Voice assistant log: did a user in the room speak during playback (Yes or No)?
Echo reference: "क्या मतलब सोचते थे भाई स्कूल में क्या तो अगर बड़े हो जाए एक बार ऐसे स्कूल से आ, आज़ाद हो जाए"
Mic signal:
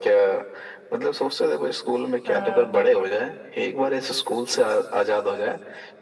Yes